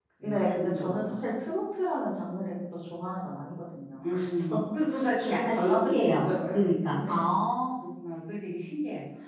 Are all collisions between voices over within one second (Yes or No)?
No